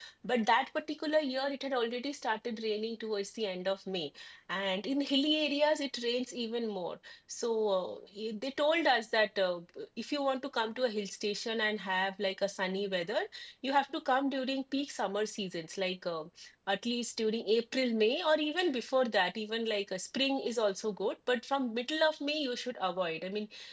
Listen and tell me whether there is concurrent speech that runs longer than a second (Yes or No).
No